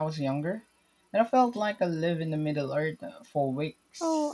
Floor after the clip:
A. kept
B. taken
B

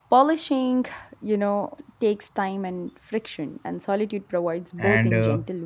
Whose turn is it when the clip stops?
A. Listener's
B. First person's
A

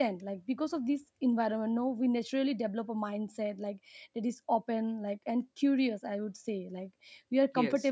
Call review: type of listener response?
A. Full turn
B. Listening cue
B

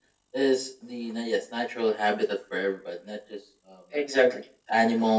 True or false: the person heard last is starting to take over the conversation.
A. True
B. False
B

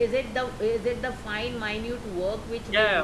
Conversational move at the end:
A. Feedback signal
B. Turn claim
B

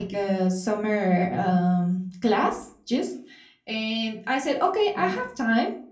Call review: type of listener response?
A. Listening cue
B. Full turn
A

